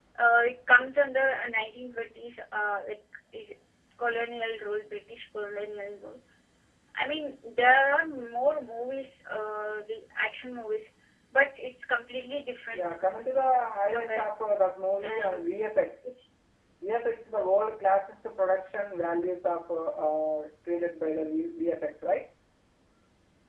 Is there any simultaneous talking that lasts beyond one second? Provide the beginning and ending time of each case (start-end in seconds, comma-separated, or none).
none